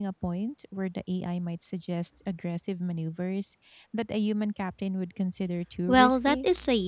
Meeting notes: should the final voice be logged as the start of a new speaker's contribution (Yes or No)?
Yes